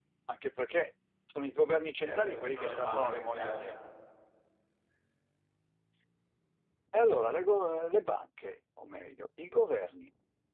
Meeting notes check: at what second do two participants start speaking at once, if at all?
2.0 s

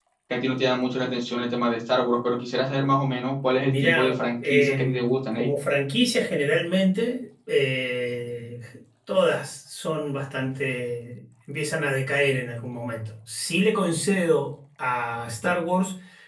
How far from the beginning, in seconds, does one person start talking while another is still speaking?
3.7 s

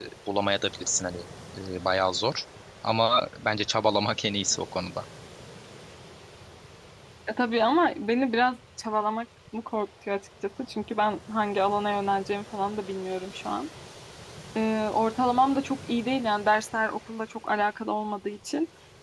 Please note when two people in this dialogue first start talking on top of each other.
none

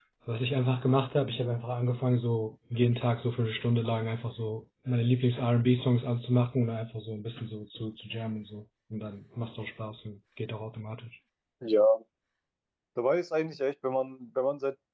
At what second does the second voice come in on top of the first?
none

